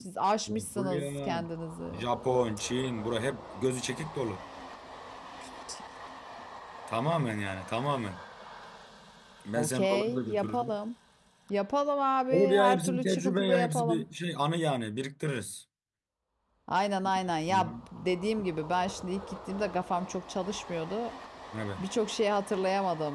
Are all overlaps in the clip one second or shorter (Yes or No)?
No